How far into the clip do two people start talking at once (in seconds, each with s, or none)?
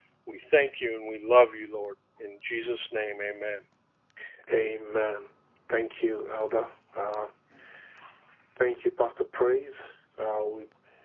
none